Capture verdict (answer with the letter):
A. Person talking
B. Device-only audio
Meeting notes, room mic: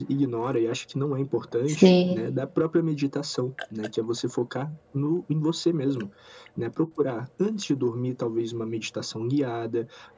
A